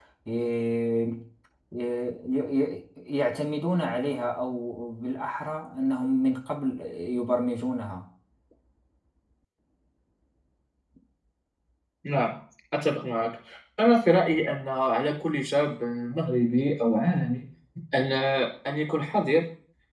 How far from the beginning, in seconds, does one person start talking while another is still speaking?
none

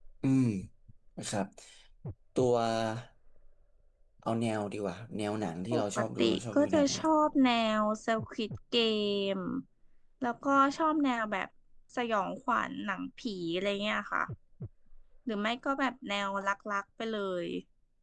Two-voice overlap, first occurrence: 6 s

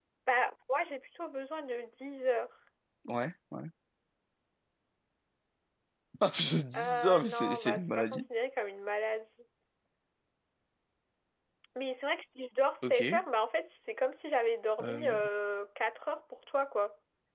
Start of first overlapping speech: 7 s

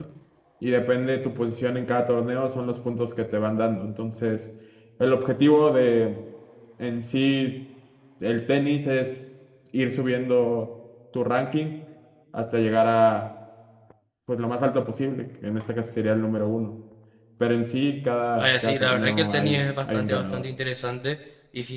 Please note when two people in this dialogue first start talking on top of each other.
18 s

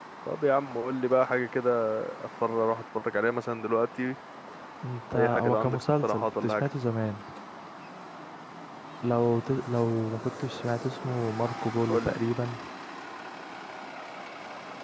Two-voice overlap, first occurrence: 5 s

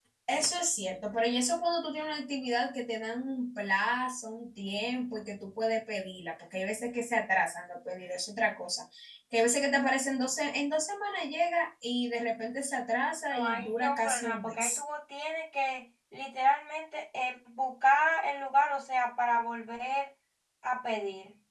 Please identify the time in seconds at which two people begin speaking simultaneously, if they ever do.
13 s

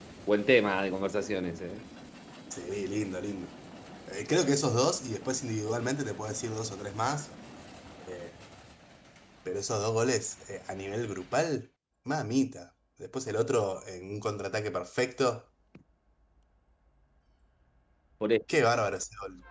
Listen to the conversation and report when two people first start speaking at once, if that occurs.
none

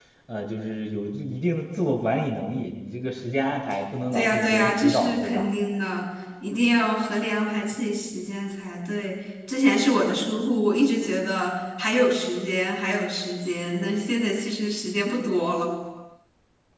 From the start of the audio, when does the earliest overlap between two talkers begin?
4 s

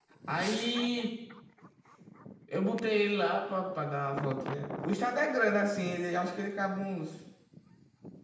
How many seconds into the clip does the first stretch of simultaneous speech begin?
none

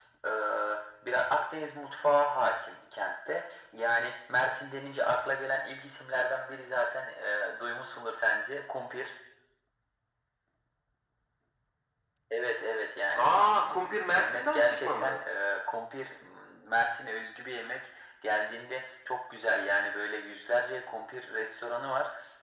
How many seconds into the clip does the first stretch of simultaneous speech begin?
13 s

